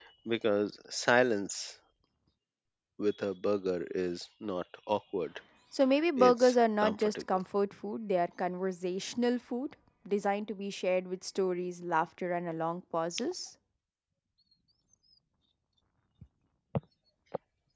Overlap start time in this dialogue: 6.2 s

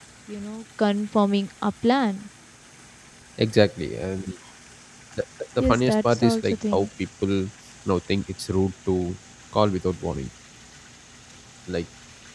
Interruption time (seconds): 5.6 s

